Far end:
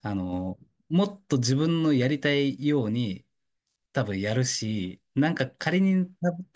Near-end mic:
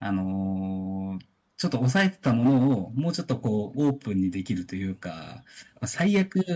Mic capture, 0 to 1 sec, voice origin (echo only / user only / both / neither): user only